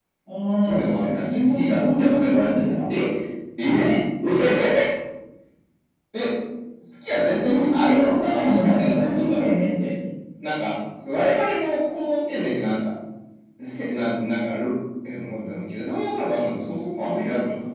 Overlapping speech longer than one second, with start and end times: 0.6-2.7, 7.4-9.5

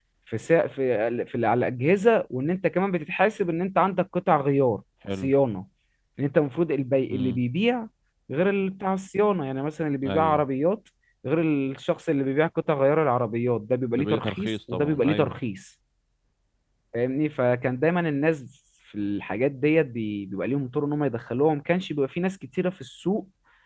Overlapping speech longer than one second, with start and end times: 13.9-15.4

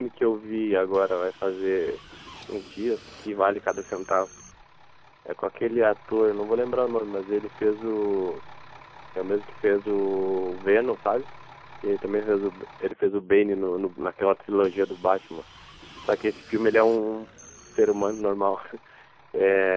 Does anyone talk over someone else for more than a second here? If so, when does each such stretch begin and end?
none

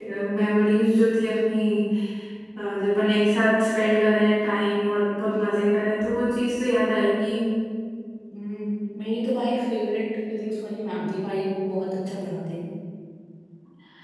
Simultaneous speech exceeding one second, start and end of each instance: none

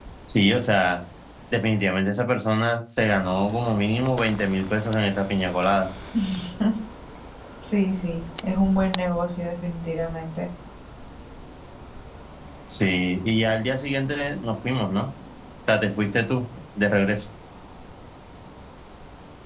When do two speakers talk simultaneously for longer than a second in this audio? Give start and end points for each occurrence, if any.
none

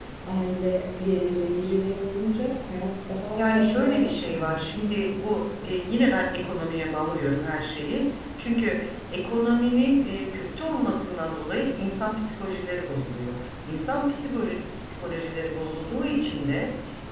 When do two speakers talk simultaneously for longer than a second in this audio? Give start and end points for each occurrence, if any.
3.3-4.7

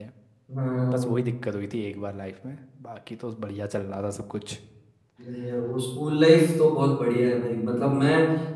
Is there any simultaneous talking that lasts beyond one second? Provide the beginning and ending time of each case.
none

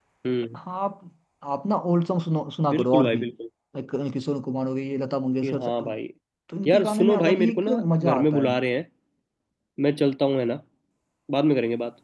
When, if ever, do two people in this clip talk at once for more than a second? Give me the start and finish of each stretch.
6.7-8.5

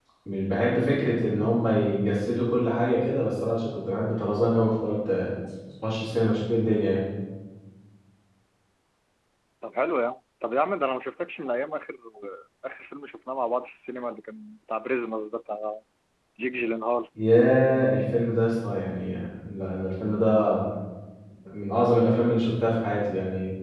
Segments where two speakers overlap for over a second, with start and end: none

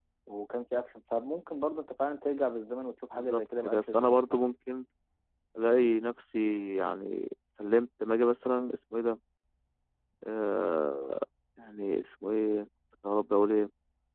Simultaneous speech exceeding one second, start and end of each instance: 3.1-4.4

